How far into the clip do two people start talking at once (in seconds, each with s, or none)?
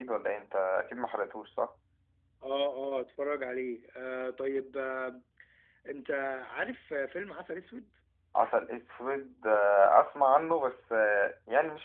none